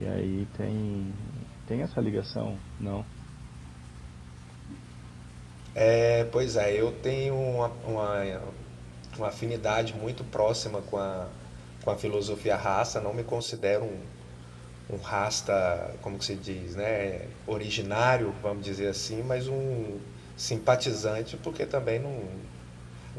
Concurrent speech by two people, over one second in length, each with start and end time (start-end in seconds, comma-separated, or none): none